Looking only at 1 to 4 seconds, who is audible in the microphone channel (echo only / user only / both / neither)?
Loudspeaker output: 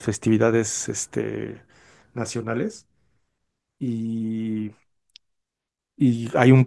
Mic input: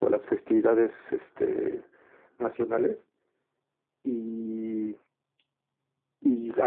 echo only